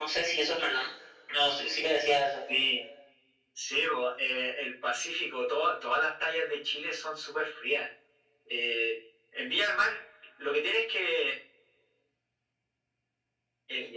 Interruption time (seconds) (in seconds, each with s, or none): none